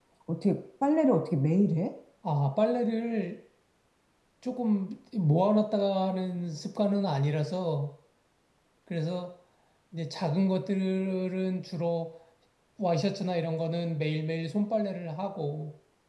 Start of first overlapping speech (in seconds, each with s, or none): none